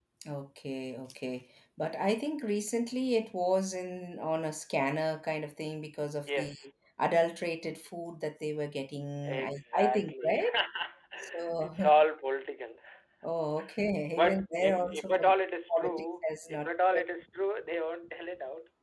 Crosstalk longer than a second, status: present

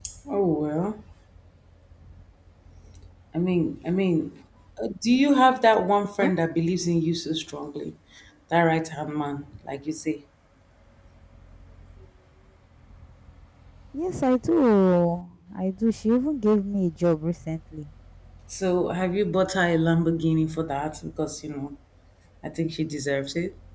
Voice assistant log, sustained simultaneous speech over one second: none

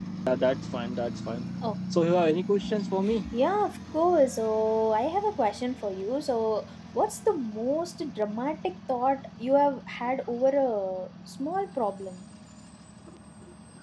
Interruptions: none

